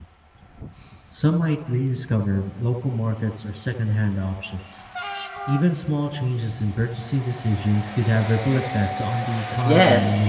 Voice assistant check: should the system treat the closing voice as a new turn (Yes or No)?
Yes